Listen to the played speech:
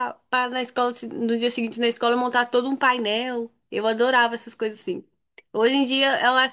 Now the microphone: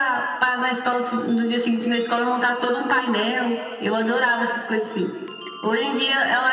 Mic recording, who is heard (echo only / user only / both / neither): echo only